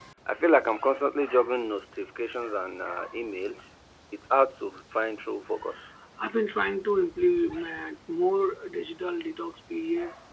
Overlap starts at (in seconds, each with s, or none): none